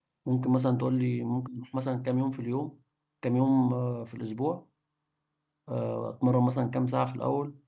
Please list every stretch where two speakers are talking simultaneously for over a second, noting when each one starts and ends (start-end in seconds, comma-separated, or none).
none